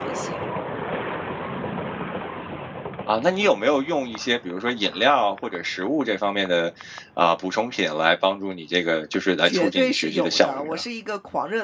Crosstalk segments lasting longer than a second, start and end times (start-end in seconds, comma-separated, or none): 9.4-10.8